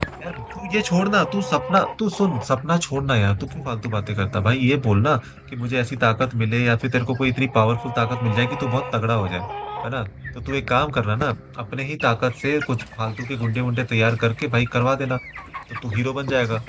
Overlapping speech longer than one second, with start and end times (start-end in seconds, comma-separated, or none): none